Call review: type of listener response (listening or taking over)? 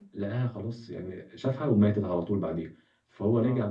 listening